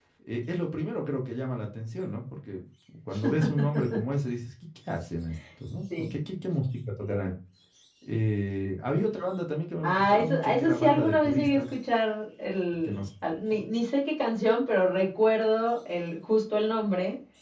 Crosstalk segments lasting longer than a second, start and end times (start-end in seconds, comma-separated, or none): 9.8-11.7